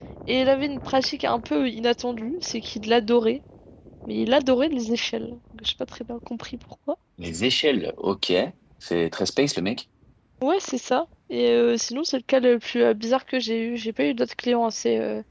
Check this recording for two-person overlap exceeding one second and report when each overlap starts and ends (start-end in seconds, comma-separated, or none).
none